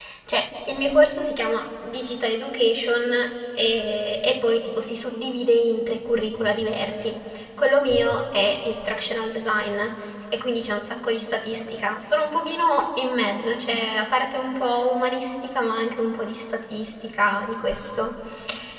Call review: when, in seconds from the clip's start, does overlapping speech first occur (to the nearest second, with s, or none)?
none